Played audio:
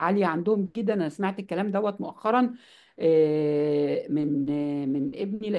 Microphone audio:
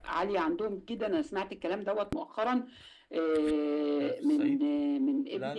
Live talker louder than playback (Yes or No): No